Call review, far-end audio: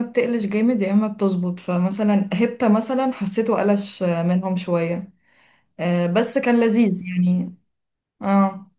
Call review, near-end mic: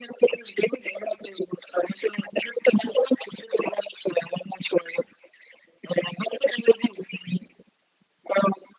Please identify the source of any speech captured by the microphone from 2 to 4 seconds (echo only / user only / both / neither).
echo only